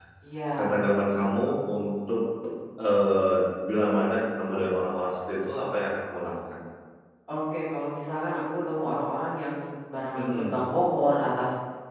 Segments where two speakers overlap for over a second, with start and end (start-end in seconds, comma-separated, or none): none